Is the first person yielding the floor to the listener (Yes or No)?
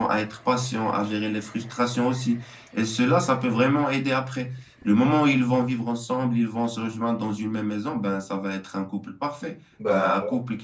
No